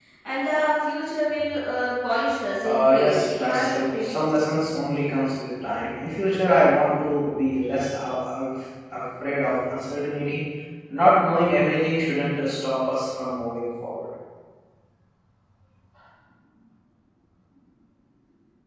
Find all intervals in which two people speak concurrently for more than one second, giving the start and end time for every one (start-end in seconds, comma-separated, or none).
2.6-4.2